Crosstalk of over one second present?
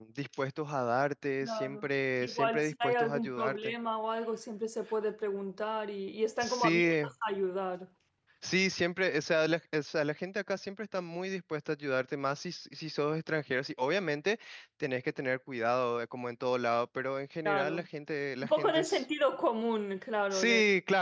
Yes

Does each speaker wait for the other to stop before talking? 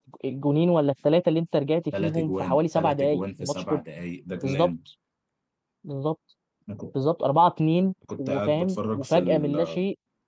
No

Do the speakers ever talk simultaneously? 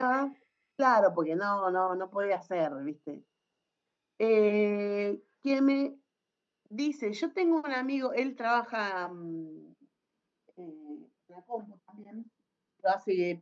No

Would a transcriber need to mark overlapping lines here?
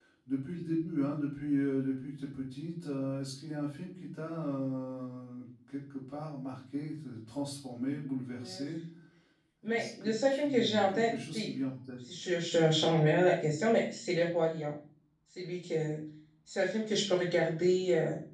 Yes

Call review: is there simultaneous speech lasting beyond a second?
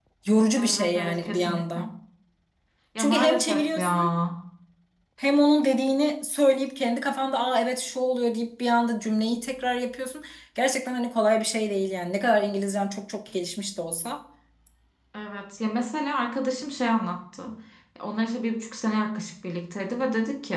Yes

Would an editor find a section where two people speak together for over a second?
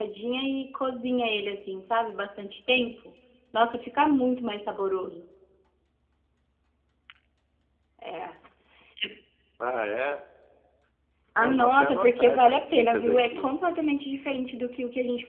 Yes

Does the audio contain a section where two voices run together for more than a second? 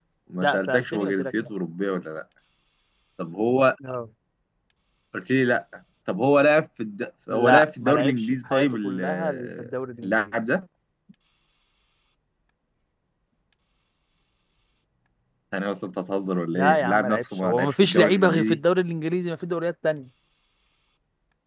Yes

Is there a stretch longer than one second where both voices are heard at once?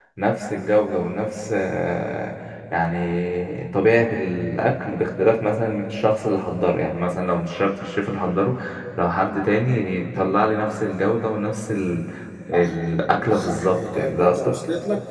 Yes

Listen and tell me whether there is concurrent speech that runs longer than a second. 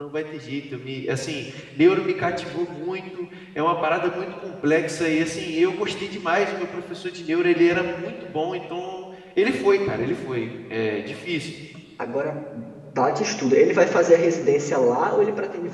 No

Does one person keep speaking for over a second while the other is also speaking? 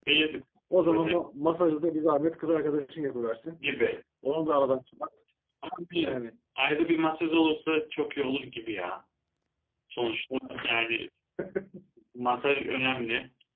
No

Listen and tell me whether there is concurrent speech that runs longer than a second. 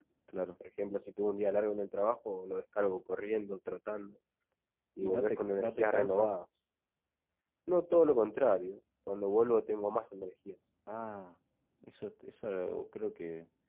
Yes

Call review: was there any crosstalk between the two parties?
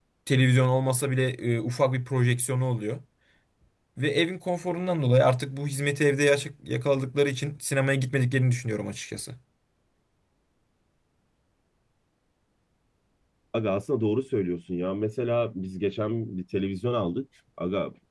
No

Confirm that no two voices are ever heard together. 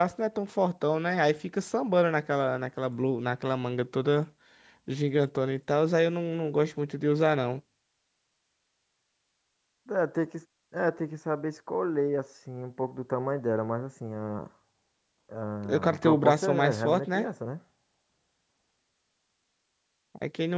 No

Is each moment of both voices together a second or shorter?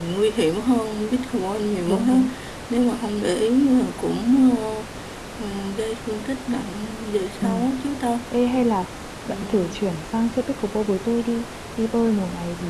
Yes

